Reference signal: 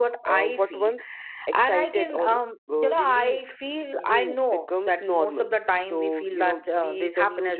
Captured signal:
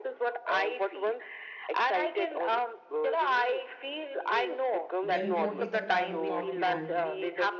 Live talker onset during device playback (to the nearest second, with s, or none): 5 s